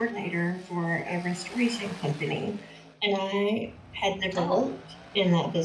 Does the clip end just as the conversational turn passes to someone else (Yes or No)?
No